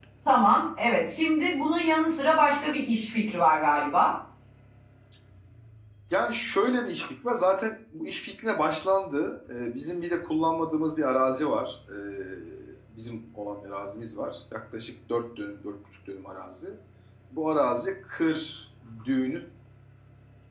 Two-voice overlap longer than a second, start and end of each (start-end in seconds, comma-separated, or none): none